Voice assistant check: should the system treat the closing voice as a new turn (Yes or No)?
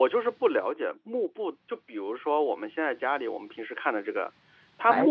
No